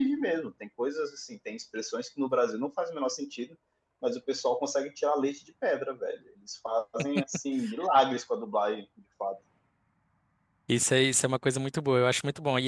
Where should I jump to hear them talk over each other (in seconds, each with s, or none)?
none